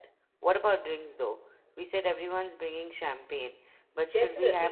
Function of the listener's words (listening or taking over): taking over